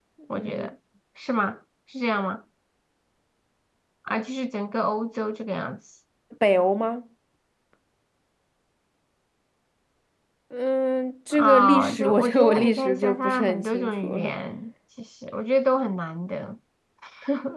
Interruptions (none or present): present